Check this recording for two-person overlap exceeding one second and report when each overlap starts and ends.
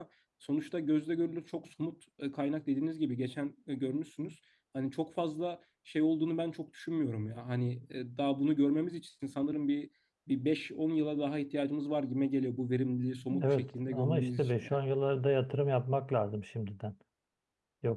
13.4-14.8

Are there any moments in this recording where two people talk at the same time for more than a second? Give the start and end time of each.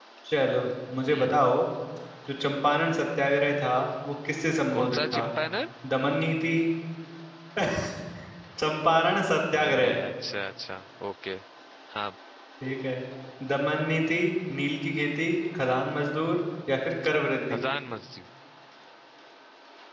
none

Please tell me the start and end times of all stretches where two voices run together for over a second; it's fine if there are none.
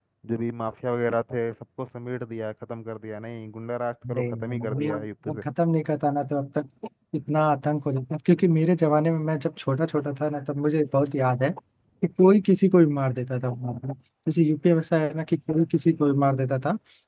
4.1-5.4

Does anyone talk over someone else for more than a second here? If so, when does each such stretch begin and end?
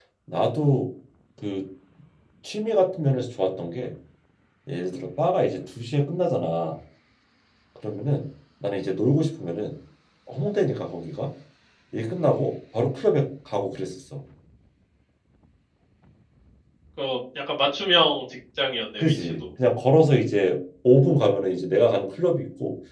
none

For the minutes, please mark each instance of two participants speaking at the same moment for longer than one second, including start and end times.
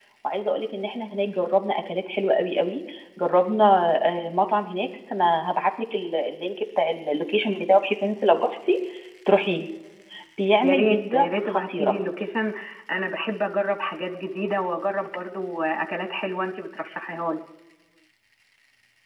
10.6-11.9

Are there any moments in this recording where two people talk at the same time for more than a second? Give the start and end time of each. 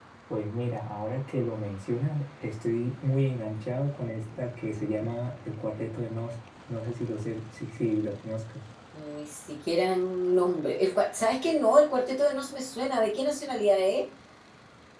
none

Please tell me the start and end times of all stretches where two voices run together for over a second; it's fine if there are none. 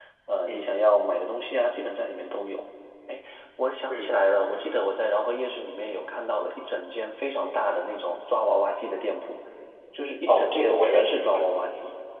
10.3-11.5

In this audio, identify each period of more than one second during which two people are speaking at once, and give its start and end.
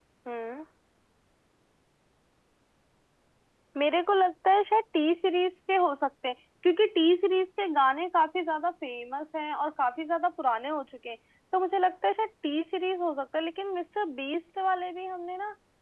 none

